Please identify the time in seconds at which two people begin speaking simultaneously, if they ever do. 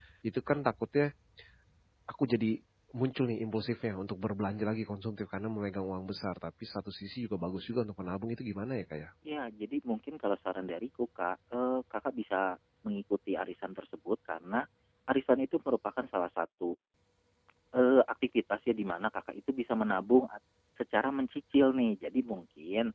none

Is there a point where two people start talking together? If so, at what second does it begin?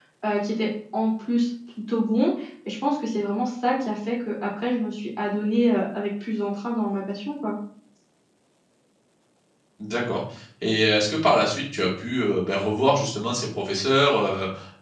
none

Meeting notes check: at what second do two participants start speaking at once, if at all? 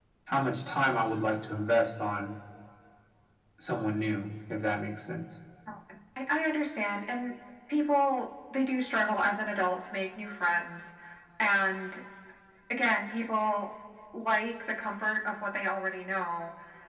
none

